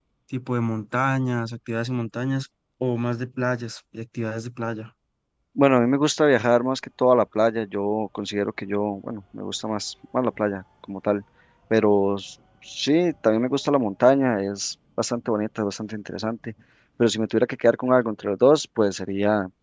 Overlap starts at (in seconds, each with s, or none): none